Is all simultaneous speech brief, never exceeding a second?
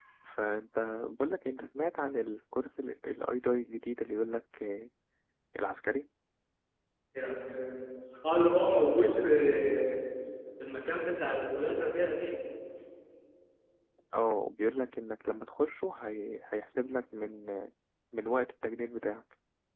Yes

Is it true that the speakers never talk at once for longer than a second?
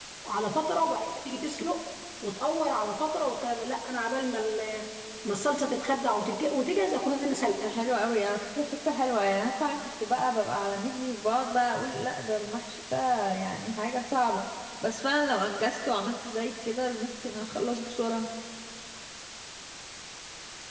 Yes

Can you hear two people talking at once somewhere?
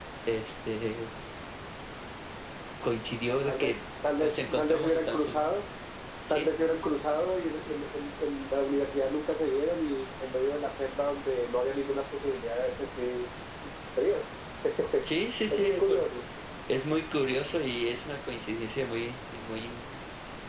Yes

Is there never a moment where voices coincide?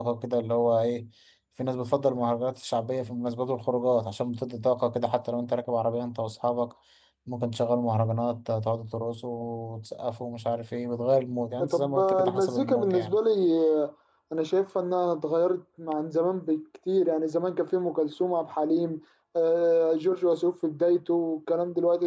No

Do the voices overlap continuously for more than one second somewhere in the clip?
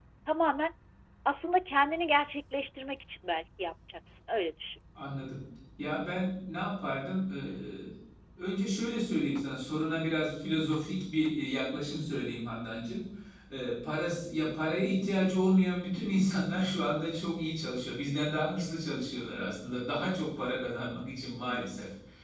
No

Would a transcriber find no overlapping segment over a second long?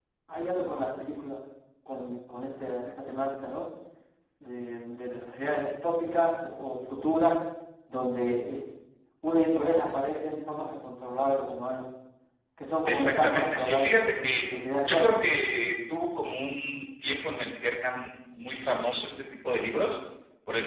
No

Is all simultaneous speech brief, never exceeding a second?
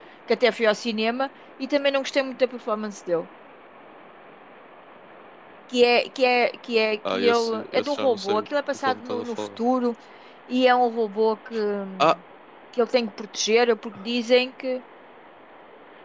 No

